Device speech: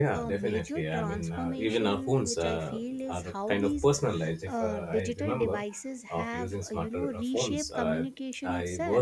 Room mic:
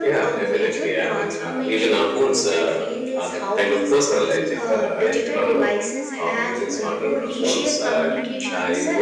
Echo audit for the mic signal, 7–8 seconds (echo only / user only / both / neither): both